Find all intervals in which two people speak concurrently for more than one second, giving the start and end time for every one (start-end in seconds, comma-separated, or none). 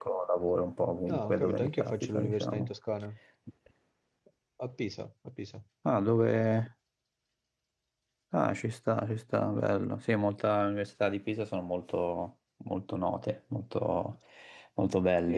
1.1-2.7